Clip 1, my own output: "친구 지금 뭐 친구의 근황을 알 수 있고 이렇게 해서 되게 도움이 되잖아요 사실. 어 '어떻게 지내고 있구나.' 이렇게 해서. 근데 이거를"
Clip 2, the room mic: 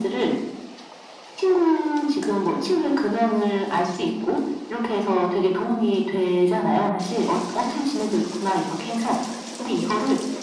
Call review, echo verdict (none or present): present